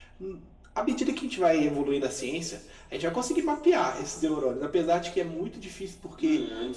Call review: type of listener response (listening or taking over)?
listening